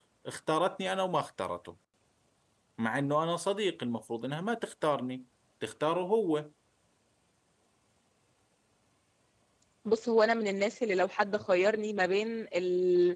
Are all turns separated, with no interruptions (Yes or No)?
Yes